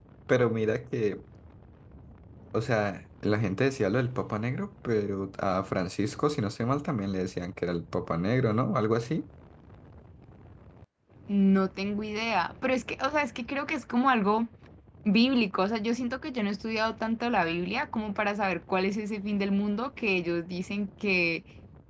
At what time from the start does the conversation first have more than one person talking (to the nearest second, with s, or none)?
none